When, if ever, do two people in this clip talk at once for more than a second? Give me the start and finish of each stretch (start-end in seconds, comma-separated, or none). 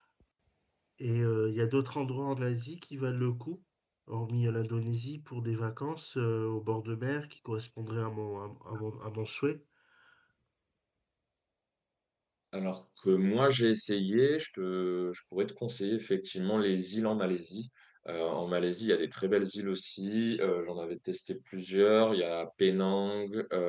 none